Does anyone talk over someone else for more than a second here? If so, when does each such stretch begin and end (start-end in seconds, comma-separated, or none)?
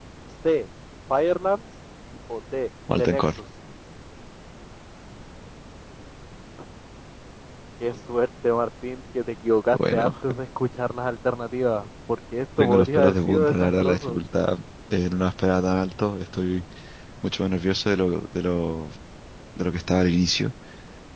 12.6-14.2